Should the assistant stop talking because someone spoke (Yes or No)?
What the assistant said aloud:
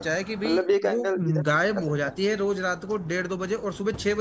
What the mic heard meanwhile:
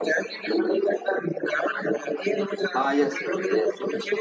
Yes